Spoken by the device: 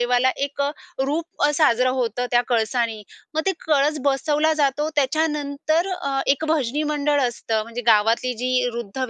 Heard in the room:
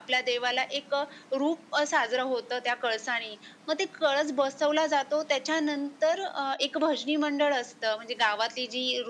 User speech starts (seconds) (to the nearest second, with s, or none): none